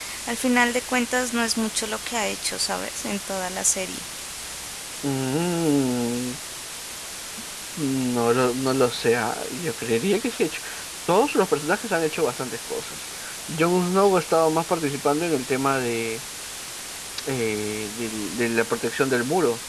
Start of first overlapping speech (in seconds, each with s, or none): none